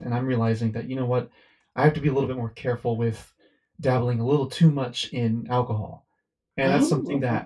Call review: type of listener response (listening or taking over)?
listening